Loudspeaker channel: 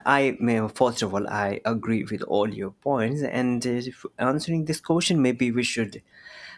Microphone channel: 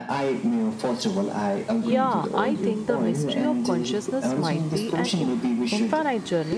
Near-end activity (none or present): present